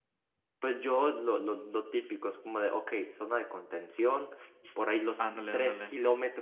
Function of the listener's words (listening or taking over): listening